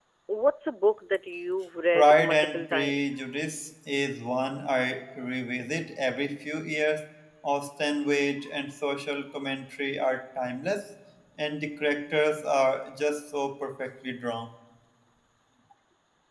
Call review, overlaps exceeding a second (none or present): present